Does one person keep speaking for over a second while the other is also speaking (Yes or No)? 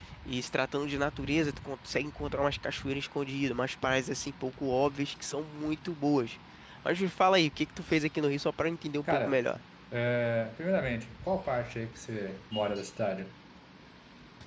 No